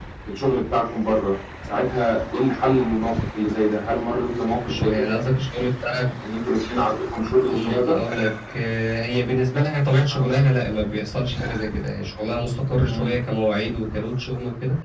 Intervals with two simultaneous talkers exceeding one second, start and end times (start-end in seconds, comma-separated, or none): none